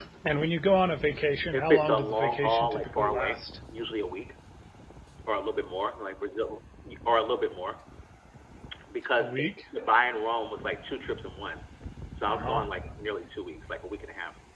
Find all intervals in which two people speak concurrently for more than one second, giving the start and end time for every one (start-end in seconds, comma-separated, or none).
1.5-3.6